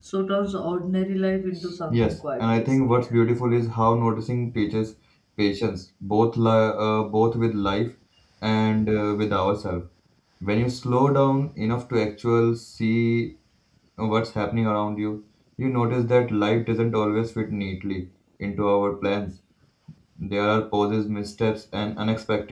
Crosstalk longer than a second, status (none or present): present